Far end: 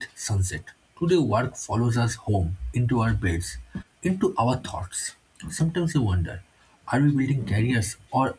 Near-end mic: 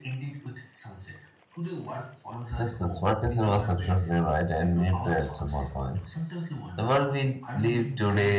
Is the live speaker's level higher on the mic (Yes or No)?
Yes